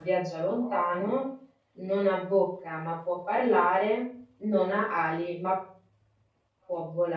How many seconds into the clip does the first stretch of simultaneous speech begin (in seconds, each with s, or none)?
none